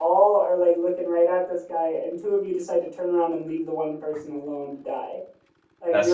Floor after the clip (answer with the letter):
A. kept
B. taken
A